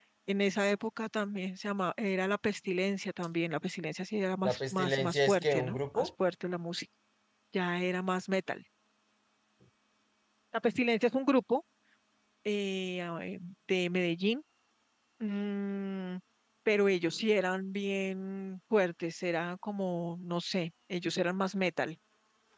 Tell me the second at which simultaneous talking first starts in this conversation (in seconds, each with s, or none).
4.4 s